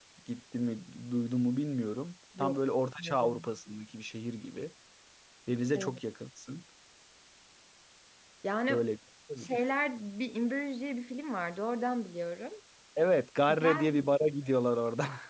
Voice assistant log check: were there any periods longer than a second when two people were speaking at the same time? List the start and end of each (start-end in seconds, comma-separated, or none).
none